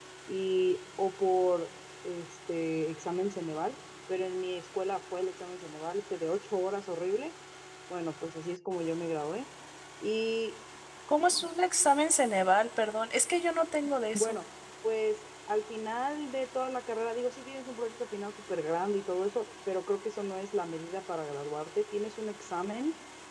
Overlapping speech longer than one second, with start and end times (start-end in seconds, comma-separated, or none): none